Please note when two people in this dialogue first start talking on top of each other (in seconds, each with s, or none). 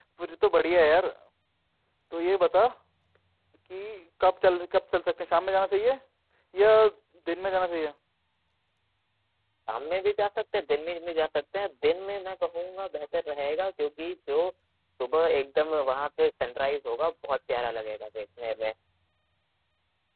none